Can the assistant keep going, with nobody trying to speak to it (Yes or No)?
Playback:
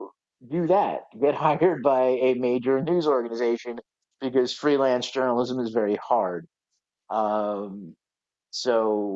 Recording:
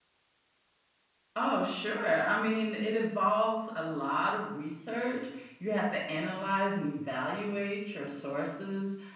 No